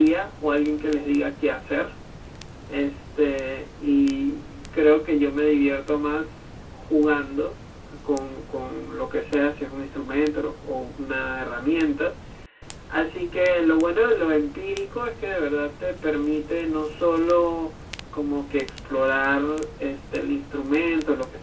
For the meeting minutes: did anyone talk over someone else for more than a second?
No

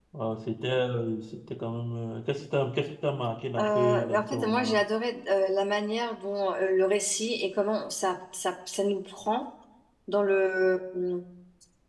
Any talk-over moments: Yes, from 3.5 s

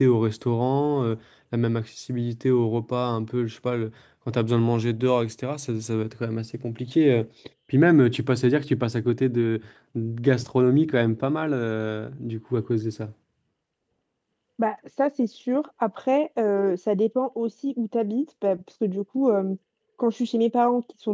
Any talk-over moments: No

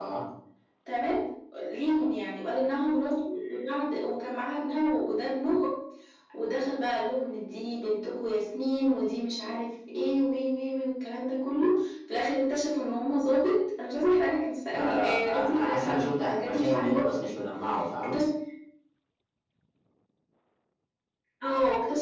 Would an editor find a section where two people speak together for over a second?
Yes, from 14.7 s

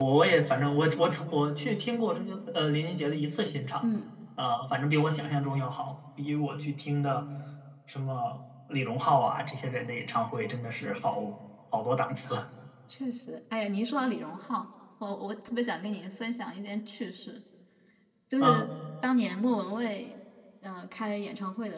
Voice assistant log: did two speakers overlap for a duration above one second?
No

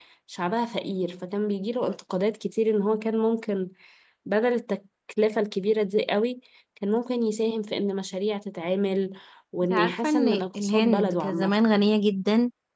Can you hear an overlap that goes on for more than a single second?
Yes, from 9.6 s

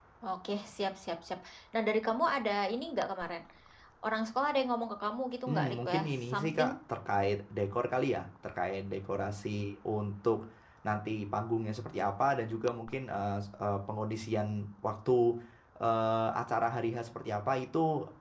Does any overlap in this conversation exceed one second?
Yes, from 5.5 s

